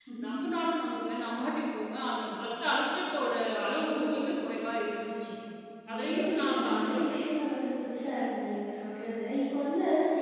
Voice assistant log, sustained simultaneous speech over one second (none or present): present